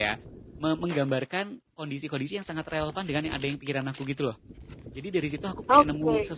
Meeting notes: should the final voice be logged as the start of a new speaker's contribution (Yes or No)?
No